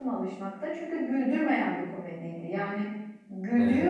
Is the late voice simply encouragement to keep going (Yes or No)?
Yes